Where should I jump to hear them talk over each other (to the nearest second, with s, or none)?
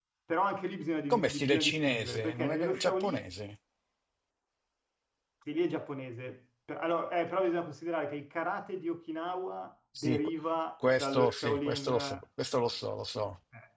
1 s